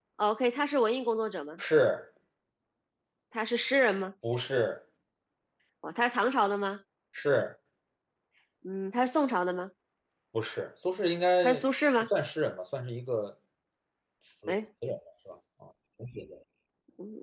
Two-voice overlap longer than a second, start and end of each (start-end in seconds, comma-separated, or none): none